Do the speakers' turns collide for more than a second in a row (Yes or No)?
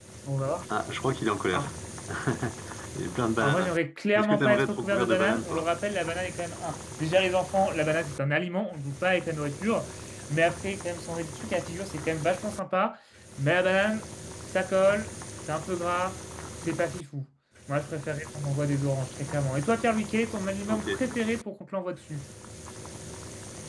Yes